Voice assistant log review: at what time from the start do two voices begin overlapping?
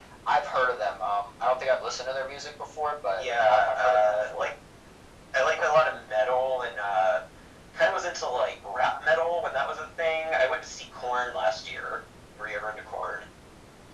3.2 s

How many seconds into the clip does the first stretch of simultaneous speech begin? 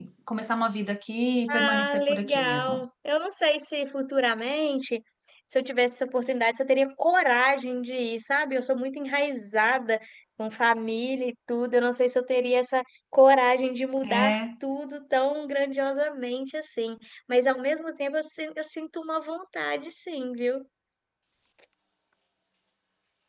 1.5 s

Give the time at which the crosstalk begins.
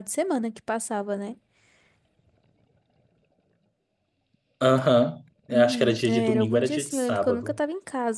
5.5 s

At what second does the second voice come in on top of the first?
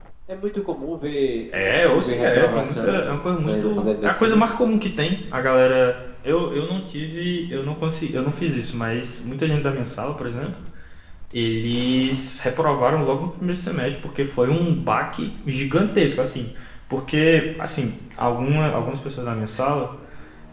1.5 s

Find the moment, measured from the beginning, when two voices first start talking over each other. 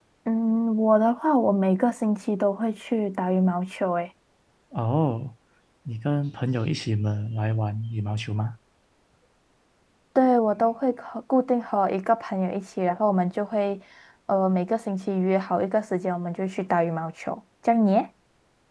none

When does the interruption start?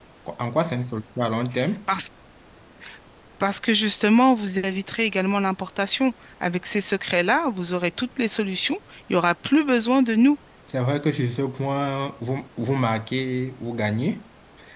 none

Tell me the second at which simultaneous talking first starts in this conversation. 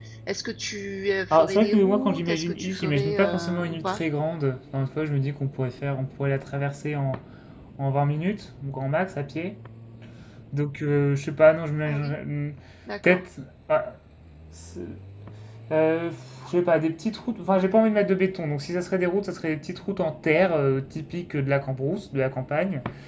1.3 s

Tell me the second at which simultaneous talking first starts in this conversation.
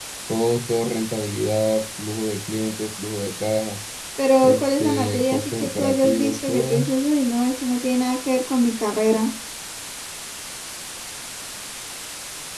4.4 s

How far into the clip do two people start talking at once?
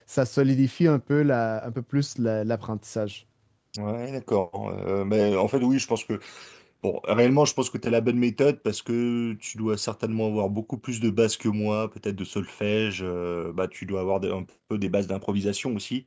none

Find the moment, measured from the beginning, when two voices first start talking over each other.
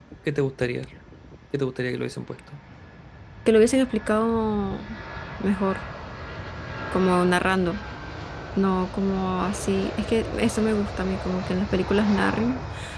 none

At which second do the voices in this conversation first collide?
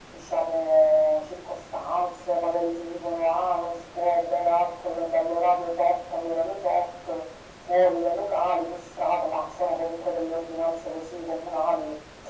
none

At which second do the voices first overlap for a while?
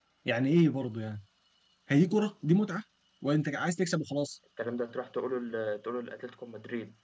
none

